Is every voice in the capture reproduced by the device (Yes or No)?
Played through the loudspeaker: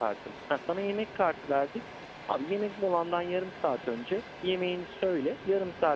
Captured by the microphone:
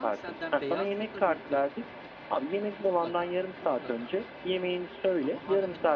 No